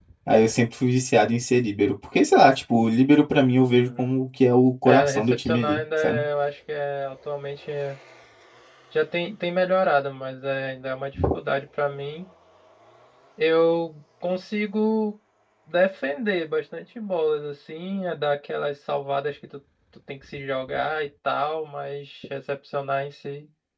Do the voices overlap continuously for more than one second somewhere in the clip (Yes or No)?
Yes